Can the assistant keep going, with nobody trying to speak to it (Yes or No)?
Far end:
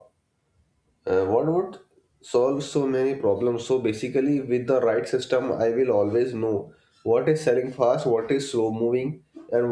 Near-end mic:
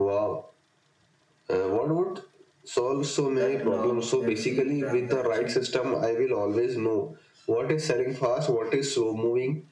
No